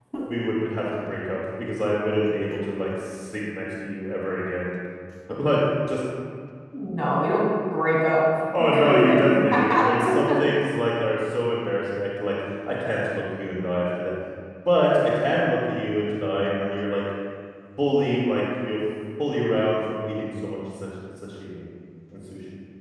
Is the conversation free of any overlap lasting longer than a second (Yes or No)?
No